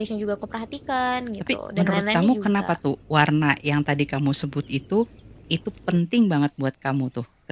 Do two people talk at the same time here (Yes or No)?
Yes